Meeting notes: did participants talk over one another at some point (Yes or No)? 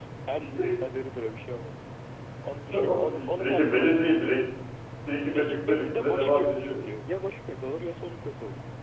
Yes